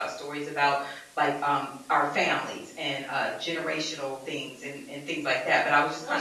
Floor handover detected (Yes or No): Yes